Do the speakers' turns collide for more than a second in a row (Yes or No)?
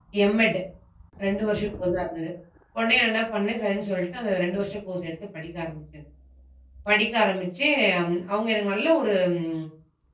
No